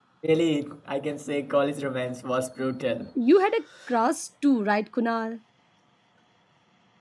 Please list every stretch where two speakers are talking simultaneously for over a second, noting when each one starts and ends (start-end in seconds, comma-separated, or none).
none